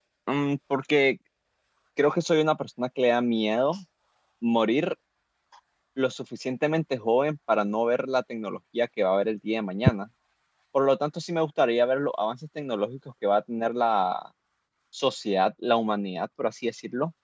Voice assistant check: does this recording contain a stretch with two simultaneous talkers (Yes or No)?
No